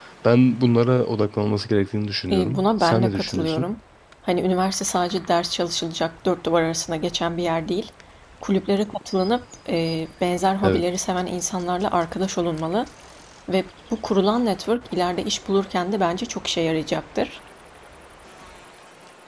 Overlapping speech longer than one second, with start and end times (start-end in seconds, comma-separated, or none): 2.3-3.7